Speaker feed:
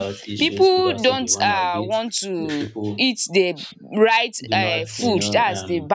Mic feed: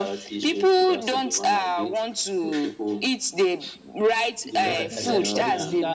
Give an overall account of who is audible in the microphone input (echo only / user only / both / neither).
both